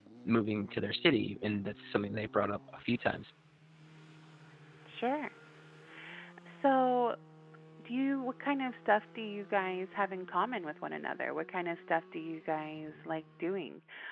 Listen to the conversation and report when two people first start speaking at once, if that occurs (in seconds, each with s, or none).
none